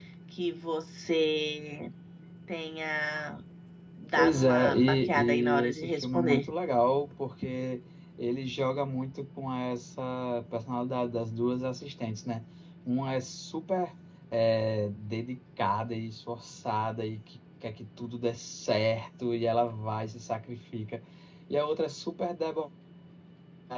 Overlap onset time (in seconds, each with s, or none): 4.2 s